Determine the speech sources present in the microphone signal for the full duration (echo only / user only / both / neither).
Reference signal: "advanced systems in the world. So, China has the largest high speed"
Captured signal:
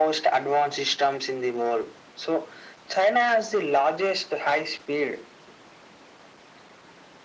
echo only